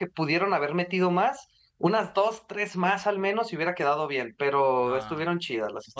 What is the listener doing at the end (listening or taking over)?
taking over